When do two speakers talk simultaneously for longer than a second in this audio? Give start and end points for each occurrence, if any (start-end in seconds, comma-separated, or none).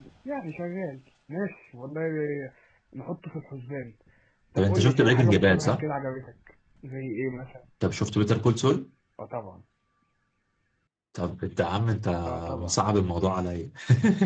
4.6-5.8